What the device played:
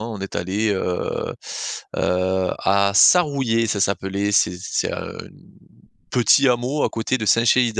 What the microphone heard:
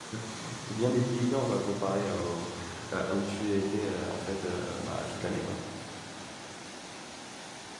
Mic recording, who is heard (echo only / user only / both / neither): user only